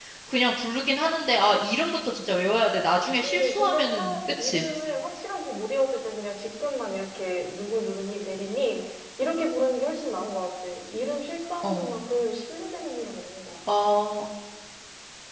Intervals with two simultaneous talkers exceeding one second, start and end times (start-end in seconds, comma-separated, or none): 3.2-4.6